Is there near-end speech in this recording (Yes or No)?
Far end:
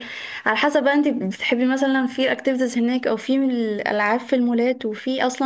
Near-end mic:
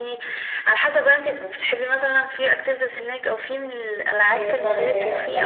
Yes